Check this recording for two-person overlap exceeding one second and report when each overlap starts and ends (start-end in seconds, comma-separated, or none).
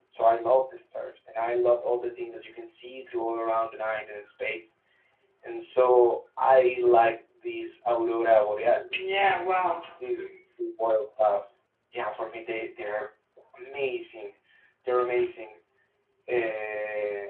none